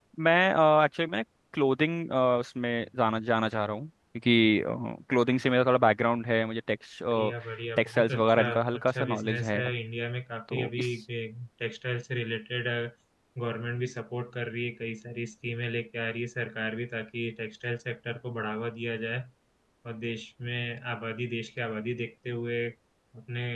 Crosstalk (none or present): present